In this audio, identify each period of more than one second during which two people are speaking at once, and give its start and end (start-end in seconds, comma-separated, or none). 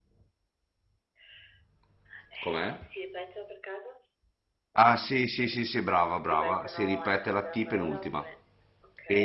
6.2-8.2